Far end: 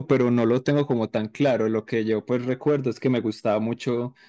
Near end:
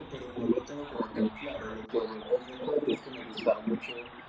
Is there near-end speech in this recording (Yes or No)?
No